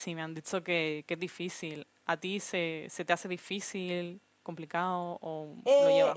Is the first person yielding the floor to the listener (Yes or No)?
Yes